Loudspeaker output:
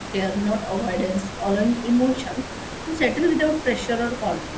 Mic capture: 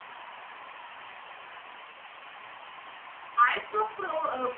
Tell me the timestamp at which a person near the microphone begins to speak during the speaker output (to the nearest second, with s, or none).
3 s